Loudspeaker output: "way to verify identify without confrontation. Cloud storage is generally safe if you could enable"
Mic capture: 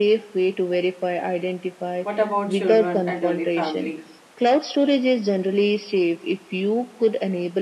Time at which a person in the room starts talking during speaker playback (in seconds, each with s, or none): 2.0 s